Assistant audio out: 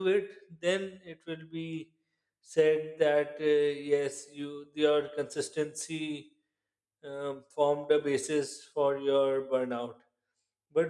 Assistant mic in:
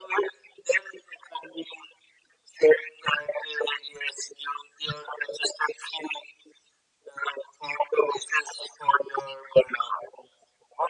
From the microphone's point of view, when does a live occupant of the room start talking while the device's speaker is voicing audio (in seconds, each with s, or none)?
none